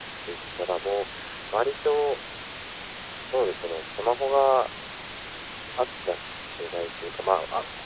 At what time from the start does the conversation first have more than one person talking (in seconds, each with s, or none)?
none